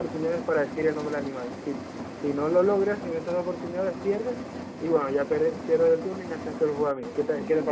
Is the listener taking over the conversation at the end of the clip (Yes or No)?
Yes